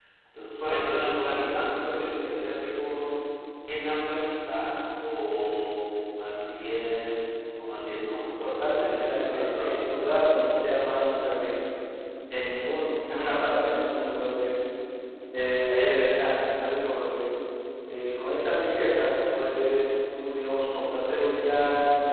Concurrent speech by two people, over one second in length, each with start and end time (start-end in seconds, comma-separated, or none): 8.4-10.0